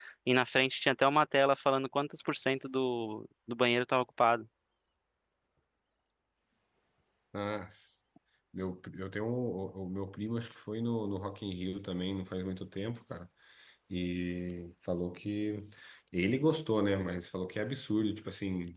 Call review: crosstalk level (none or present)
none